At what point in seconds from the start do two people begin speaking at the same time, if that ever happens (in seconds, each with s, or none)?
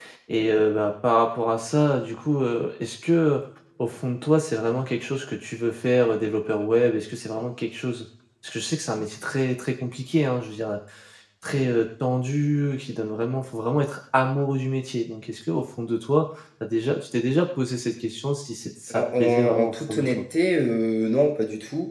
18.9 s